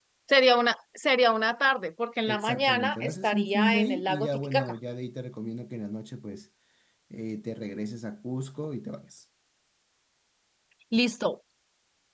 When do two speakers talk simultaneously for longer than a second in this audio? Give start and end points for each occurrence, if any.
2.3-4.7

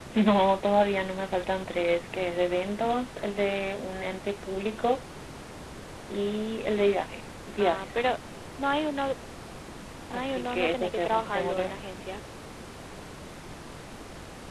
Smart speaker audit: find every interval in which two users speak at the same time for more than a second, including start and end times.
10.1-11.7

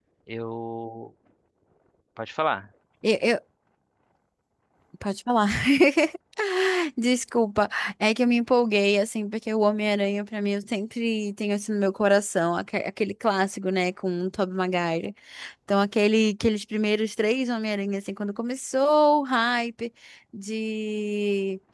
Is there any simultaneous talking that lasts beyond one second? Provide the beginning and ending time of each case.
none

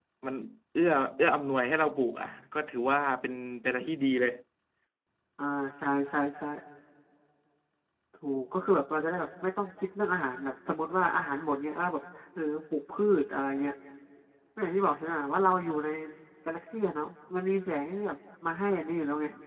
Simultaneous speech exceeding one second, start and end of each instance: none

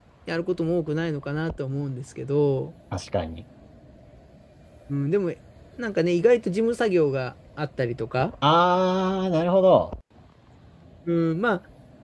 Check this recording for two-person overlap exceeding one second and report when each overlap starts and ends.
none

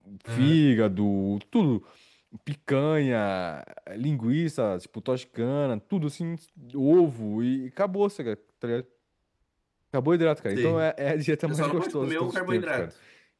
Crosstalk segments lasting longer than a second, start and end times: 11.5-12.9

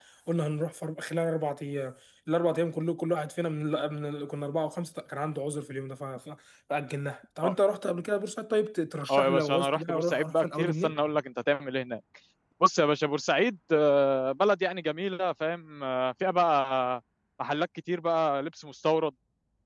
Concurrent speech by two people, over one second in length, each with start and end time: 9.1-10.9

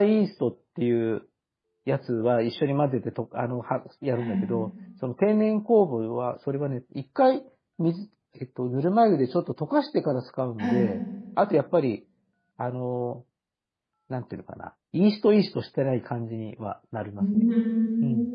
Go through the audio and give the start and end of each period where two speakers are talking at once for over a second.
none

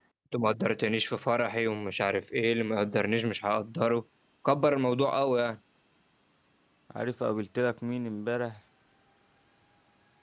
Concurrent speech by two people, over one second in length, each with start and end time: none

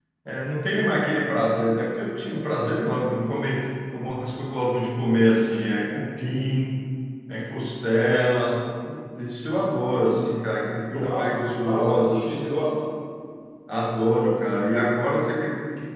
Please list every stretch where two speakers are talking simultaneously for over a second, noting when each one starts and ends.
10.9-12.5

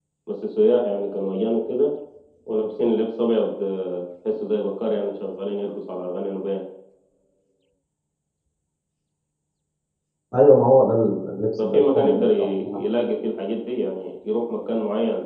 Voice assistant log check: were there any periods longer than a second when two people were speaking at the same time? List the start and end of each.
11.6-12.8

